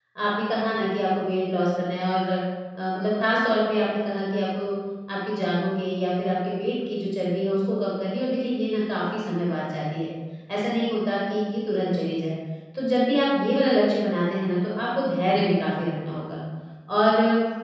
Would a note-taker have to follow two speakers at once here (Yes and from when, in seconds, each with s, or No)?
No